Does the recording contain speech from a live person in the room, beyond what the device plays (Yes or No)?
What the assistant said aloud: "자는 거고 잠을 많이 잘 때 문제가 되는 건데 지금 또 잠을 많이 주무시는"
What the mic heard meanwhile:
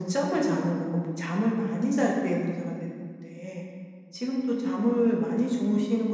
No